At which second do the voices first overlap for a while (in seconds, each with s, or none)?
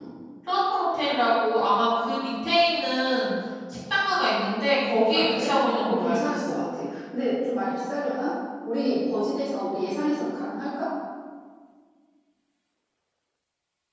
5.1 s